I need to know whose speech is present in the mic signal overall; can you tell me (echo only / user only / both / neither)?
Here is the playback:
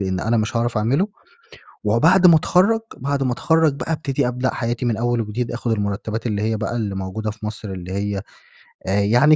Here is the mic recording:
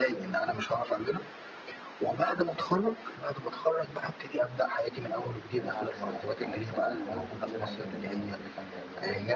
both